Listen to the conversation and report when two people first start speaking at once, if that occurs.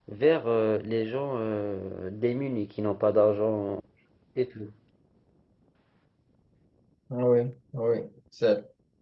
none

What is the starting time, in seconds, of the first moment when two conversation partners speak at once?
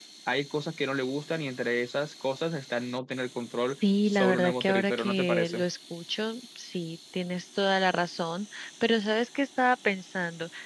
4.0 s

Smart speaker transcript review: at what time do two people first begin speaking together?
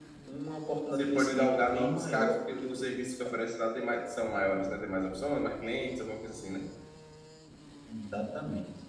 0.9 s

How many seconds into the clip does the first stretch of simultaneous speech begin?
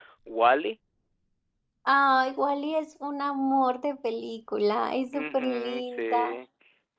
5.1 s

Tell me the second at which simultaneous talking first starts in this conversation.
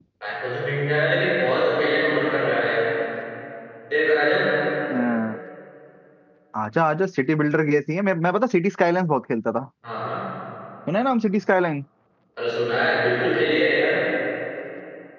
none

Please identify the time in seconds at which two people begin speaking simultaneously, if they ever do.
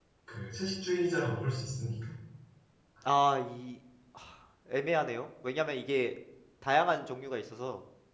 none

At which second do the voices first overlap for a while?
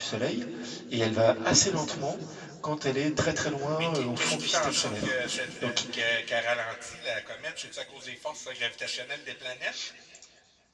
3.8 s

